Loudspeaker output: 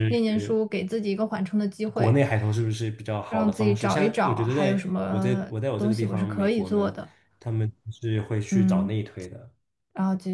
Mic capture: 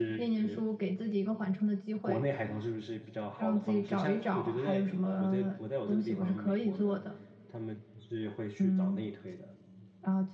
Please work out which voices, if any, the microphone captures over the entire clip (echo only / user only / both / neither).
echo only